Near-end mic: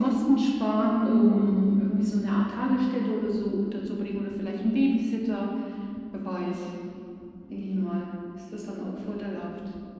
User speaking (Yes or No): No